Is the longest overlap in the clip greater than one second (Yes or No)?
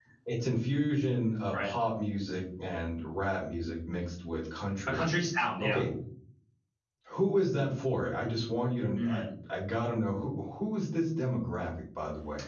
No